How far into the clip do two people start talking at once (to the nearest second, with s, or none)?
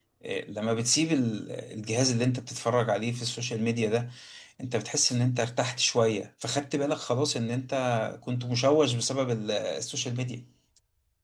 none